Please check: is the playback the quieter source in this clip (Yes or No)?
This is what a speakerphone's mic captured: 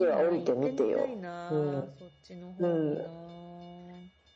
No